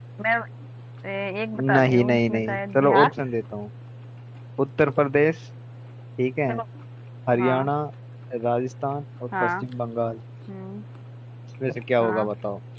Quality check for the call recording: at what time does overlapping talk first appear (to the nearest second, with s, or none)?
2 s